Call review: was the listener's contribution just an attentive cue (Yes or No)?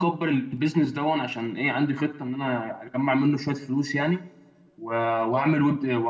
Yes